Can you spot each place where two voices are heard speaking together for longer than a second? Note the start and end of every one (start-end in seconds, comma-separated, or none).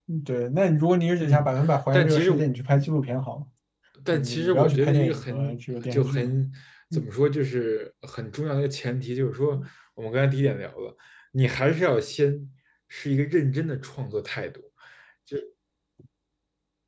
4.1-6.3